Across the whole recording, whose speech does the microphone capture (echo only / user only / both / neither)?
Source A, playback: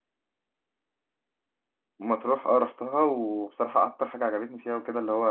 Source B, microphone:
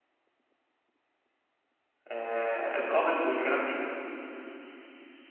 user only